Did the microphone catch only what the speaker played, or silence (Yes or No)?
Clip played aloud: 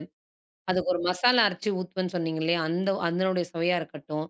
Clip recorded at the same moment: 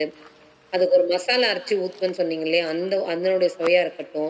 Yes